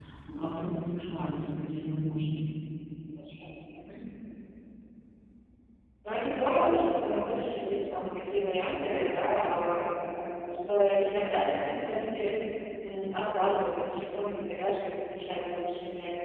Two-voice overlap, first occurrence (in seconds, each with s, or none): none